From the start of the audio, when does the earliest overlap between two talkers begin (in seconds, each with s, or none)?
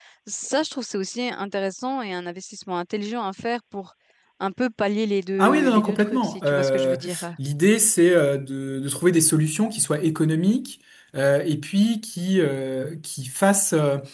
5.4 s